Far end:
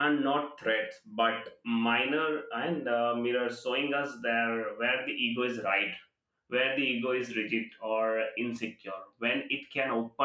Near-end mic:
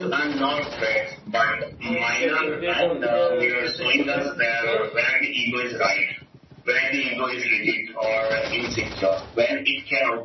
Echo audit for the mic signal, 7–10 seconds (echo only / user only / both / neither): echo only